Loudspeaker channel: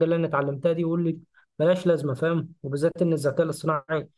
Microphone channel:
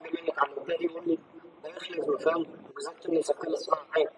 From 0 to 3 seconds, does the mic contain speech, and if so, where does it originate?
echo only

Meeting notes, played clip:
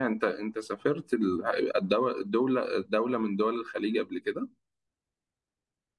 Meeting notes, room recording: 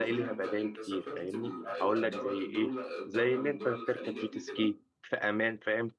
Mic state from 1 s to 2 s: both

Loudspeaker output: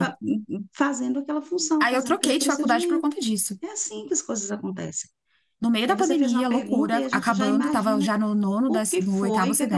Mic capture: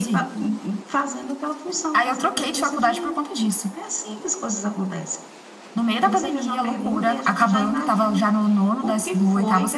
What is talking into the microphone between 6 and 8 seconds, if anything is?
echo only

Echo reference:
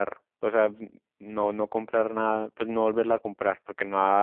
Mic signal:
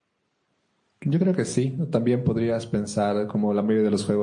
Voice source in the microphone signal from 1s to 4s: user only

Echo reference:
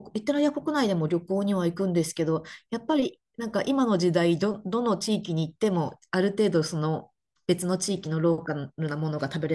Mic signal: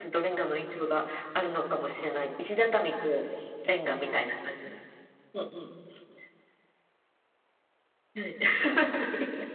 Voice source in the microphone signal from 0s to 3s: user only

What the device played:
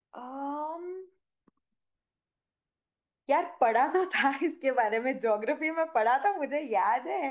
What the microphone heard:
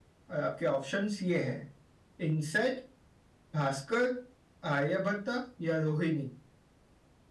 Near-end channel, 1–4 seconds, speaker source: user only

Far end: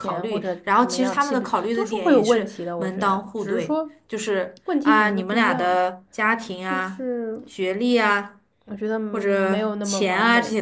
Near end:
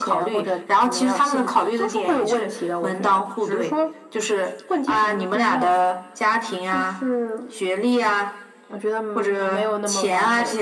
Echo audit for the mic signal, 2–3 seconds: echo only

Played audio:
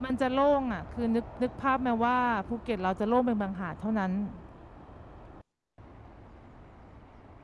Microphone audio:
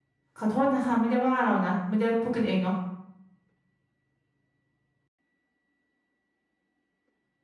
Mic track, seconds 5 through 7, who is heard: neither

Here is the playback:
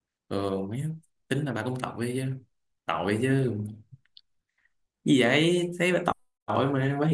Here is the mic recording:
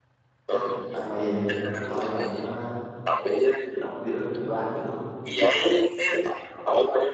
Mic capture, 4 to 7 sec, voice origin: both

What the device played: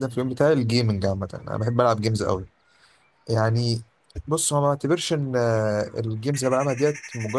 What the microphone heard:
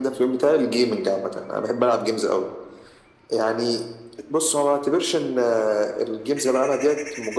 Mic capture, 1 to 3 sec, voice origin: echo only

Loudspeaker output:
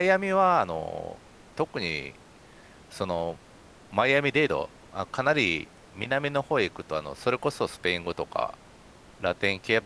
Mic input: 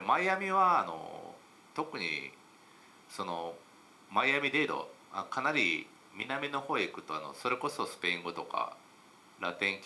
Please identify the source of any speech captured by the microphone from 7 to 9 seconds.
echo only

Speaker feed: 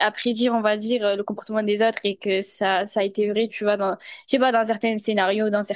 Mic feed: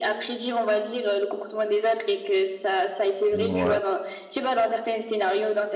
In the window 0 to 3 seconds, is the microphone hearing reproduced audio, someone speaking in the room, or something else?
echo only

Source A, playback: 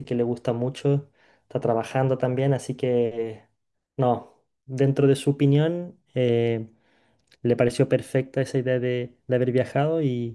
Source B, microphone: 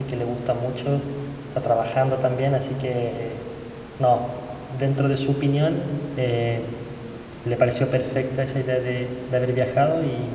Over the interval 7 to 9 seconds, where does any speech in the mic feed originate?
echo only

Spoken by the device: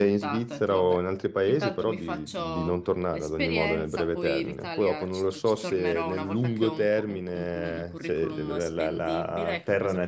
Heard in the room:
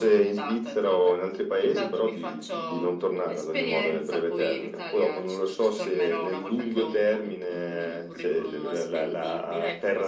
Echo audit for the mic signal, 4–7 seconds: echo only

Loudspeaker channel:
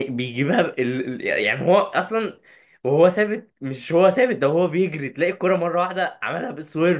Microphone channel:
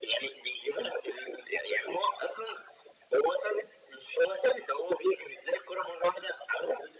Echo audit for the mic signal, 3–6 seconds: echo only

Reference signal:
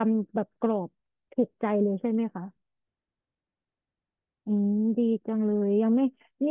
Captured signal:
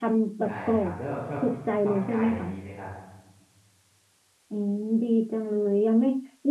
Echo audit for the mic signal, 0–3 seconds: both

